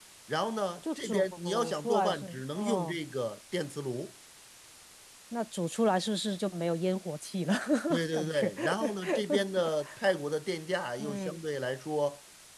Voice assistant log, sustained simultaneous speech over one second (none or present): present